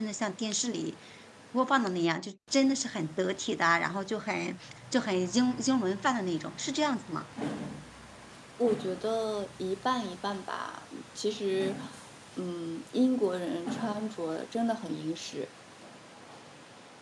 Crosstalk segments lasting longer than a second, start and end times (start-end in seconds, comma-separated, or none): none